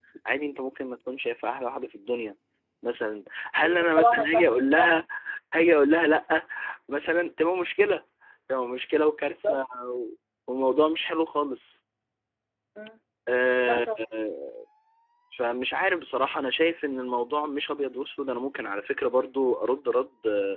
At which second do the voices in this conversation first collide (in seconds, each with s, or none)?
3.6 s